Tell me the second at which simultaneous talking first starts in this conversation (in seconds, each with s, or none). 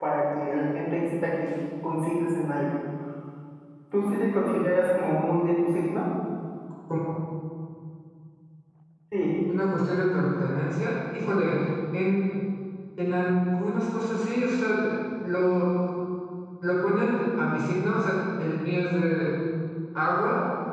none